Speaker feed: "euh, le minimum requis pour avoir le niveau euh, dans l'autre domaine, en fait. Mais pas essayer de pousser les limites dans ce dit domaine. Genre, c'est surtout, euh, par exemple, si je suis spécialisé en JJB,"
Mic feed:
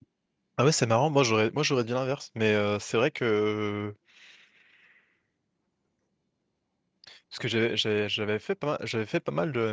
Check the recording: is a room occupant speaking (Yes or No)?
Yes